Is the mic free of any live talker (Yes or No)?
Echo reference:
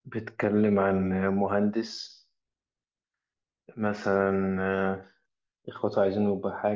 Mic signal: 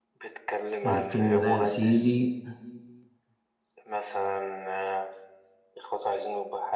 No